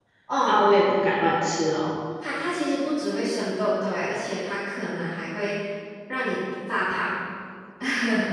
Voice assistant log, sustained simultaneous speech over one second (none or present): none